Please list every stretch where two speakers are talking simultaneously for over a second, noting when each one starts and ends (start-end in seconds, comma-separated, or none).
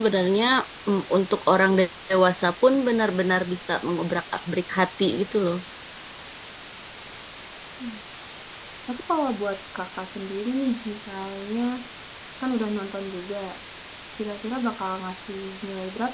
none